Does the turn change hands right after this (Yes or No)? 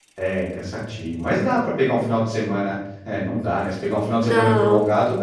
No